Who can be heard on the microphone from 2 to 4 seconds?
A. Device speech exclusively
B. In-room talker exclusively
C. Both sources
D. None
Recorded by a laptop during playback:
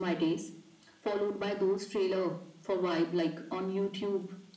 A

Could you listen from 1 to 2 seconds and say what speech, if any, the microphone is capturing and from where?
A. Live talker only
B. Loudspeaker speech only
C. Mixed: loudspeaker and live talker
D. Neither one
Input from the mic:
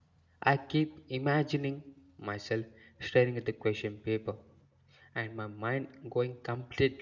A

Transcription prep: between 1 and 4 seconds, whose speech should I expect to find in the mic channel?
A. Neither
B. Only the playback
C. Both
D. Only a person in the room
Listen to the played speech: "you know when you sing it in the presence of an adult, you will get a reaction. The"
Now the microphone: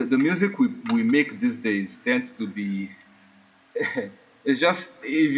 D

